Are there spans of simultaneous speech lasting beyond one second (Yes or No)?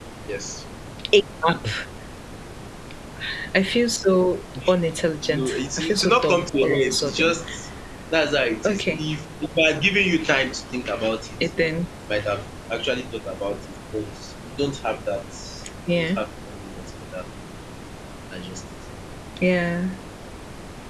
Yes